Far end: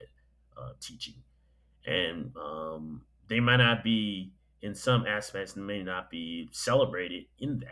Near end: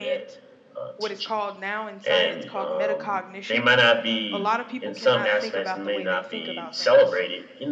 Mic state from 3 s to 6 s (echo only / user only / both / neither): both